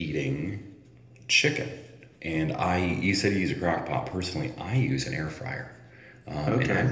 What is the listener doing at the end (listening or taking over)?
listening